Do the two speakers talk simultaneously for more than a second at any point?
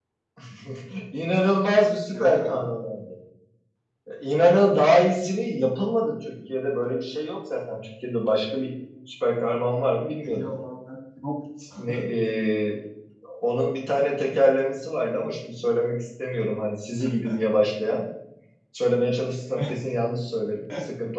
No

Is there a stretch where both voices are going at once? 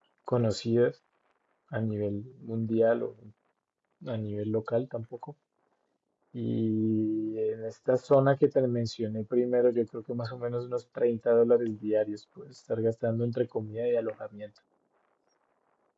No

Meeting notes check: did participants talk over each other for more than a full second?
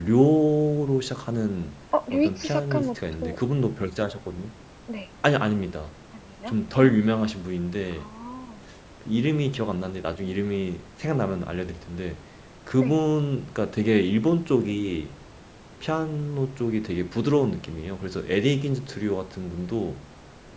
Yes, from 1.9 s

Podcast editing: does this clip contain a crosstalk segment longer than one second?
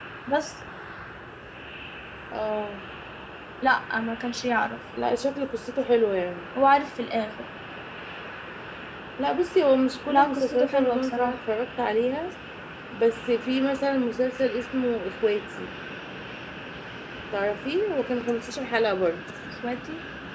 Yes, from 10.1 s

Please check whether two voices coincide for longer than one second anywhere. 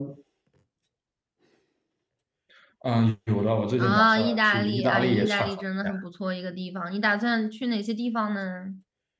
Yes, from 3.8 s

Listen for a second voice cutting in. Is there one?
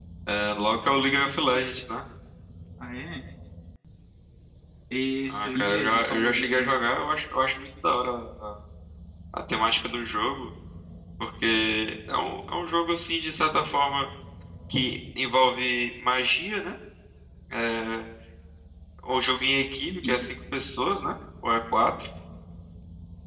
Yes, from 5.3 s

